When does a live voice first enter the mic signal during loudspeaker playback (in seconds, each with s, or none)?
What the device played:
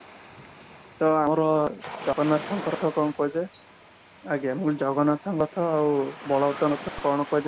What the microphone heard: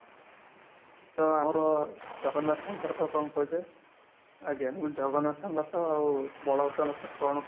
none